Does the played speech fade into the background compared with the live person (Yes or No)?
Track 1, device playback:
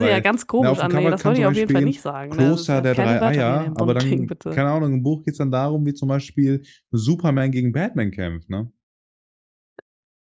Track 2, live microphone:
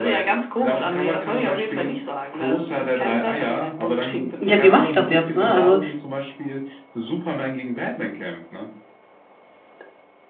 Yes